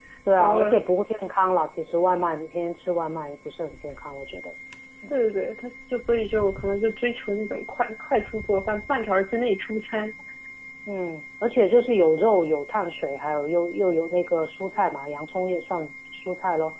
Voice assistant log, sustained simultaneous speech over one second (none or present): none